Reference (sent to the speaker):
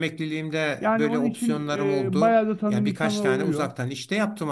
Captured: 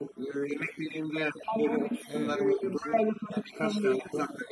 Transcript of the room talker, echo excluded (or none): Evet, bu